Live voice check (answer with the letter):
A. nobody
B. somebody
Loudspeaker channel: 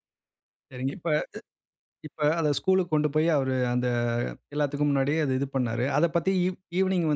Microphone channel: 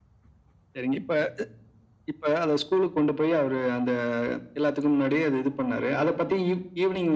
A